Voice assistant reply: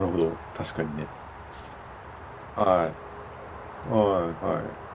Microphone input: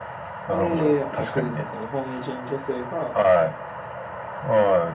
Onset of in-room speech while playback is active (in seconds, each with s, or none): 0.5 s